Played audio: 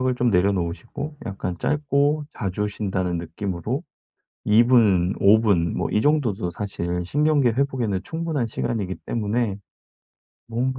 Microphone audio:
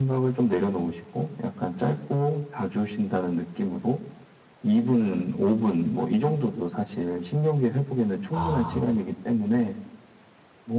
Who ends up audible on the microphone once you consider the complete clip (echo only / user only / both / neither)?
both